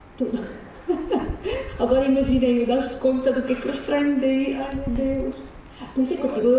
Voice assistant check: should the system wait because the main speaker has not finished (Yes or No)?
Yes